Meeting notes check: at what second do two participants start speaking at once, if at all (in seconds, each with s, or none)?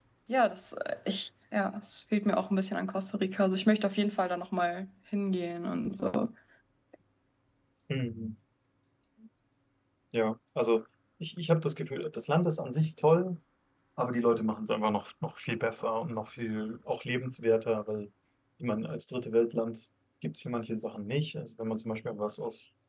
none